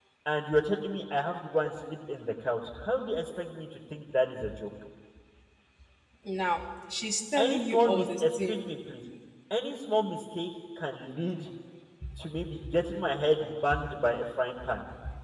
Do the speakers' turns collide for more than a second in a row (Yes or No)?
Yes